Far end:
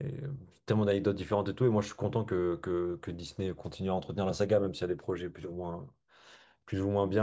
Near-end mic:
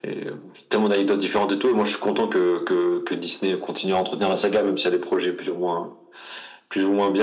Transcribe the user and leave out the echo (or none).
none